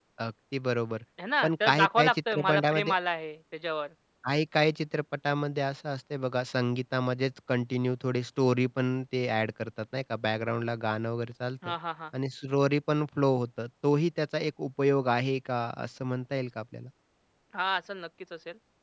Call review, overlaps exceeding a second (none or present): present